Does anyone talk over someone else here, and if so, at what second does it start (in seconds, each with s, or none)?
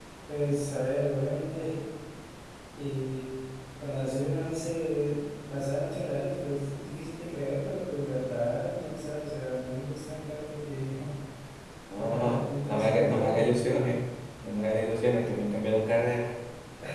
12.0 s